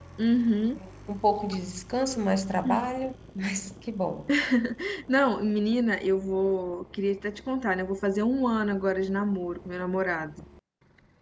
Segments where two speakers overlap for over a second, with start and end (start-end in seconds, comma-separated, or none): none